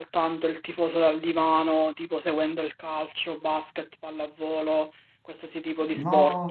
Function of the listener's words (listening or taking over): taking over